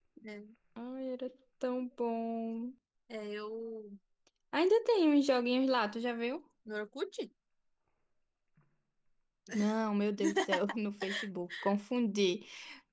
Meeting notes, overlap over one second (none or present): none